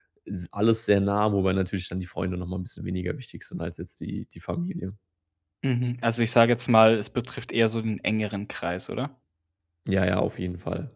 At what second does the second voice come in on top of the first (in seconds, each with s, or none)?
none